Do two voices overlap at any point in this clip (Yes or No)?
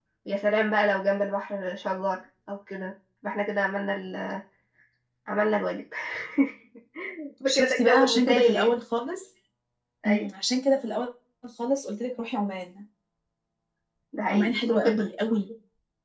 Yes